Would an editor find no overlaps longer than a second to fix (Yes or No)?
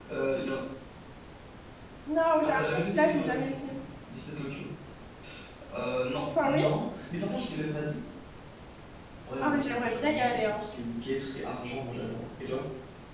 No